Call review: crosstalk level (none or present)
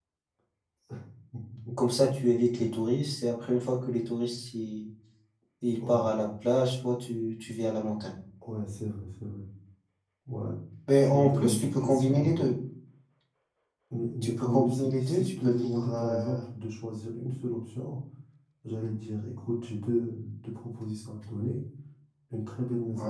present